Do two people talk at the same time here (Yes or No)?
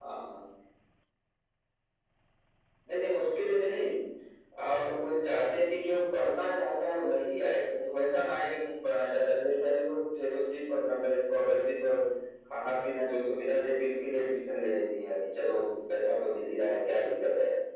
No